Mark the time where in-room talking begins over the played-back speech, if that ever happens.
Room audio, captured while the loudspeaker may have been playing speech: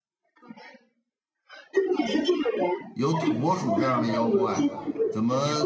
2.9 s

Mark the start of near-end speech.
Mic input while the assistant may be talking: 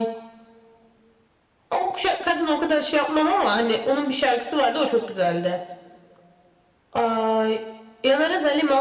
none

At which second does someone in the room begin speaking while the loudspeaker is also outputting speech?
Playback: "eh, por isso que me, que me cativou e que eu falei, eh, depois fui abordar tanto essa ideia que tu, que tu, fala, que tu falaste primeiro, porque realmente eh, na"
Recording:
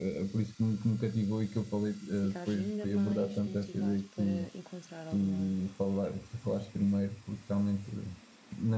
2.1 s

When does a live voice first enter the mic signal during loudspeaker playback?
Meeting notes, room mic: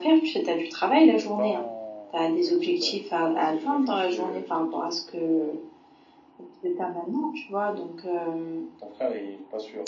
1.1 s

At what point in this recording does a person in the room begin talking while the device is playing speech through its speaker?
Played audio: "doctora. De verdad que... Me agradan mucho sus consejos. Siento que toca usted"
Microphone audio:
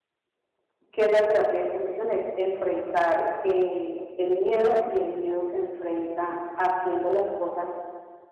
0.9 s

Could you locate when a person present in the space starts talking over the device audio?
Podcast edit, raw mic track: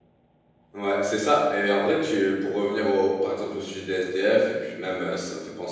0.7 s

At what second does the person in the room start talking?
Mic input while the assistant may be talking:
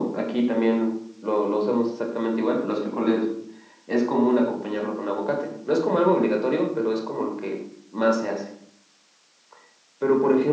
none

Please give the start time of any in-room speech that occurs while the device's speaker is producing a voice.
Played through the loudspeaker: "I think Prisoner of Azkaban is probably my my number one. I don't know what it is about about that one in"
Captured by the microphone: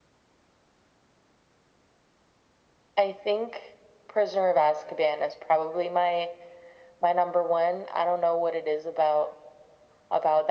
none

